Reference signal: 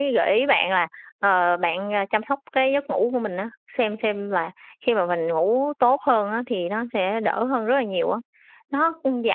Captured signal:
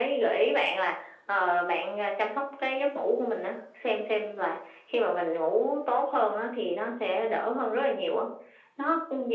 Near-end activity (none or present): none